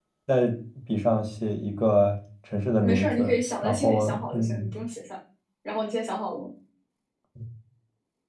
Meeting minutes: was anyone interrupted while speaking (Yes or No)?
Yes